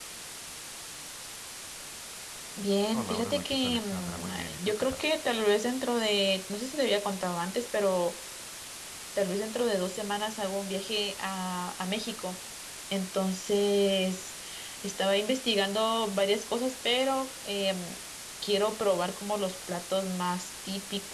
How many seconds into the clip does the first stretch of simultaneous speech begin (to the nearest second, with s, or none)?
3 s